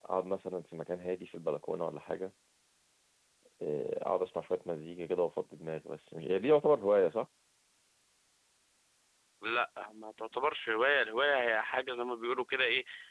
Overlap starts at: none

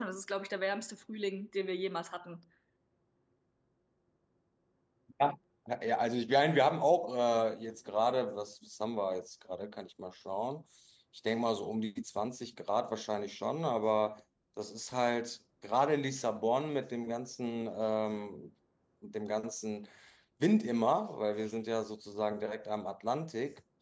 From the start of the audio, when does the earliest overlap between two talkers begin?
none

